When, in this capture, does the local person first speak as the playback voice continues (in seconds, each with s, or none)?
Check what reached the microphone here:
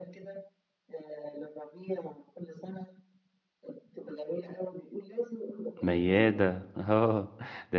5.8 s